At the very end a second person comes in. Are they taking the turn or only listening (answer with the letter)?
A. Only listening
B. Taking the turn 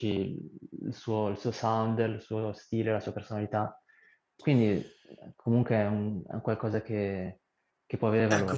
B